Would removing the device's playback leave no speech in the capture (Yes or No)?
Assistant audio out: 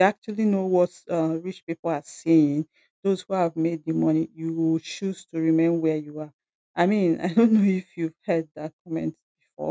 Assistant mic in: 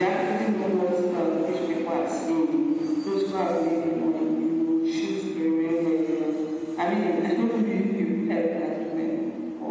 Yes